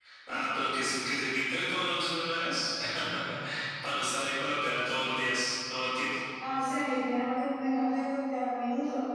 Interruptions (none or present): none